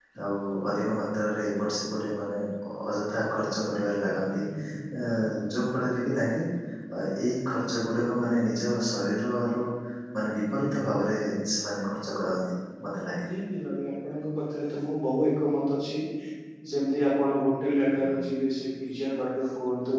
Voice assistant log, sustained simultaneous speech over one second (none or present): none